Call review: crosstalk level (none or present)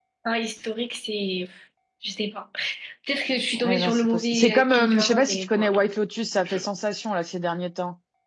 present